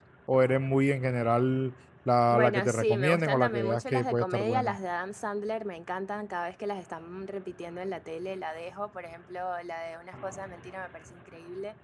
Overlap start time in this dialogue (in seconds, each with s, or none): 2.3 s